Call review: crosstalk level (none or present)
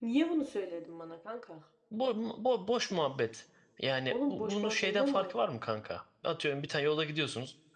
present